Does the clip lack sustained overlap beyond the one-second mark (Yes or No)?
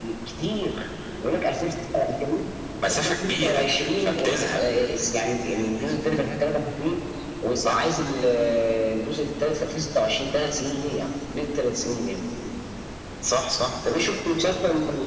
No